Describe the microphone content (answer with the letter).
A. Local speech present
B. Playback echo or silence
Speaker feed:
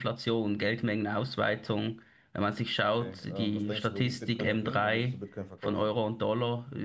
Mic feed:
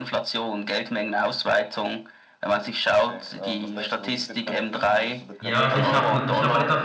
A